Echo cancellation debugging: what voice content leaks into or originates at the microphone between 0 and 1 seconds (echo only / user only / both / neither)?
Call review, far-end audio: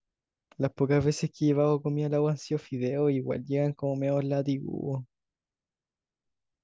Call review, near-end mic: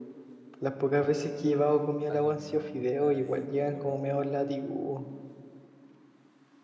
echo only